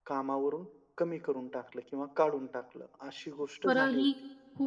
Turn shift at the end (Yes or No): Yes